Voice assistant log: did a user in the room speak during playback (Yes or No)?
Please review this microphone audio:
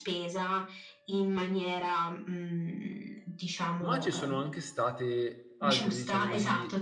Yes